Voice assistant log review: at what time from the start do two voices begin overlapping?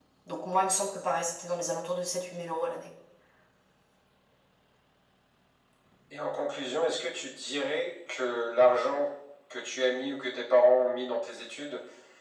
none

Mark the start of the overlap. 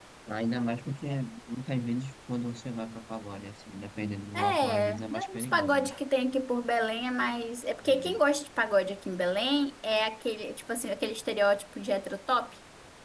4 s

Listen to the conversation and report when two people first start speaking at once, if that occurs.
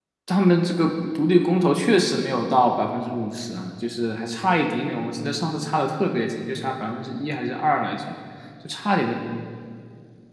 none

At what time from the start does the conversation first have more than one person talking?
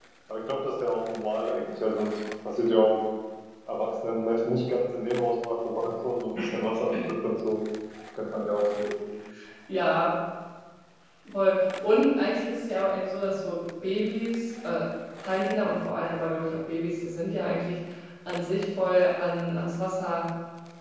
none

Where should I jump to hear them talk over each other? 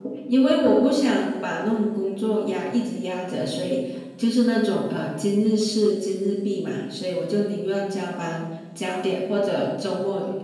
none

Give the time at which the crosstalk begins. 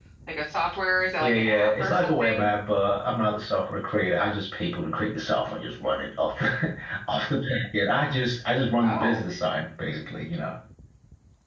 1 s

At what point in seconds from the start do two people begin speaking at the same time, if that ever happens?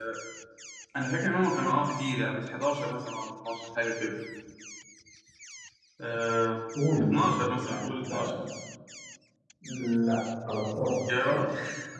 7 s

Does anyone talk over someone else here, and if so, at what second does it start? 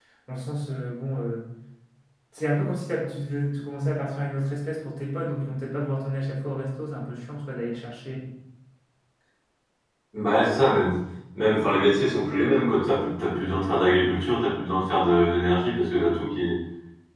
none

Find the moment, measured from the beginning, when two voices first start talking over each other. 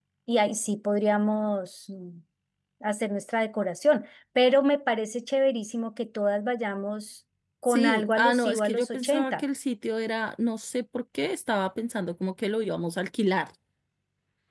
8 s

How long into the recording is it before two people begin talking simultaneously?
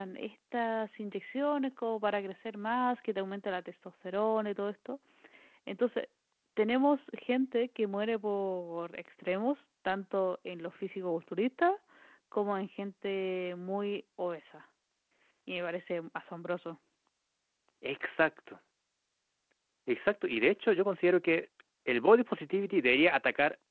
none

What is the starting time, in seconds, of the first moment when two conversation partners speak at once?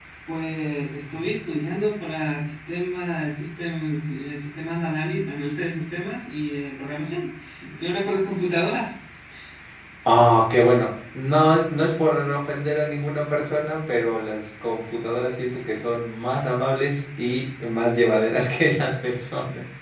none

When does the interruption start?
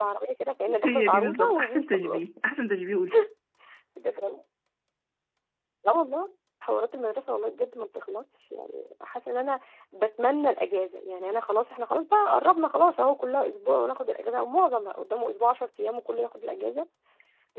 1 s

